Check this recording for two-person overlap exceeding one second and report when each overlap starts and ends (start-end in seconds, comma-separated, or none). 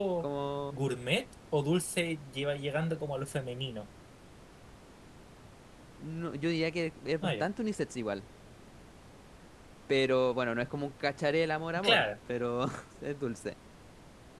none